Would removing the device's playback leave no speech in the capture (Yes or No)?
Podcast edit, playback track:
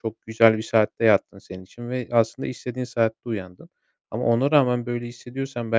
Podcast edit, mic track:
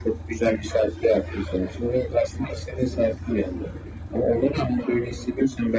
Yes